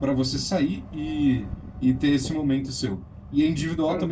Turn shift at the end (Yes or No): No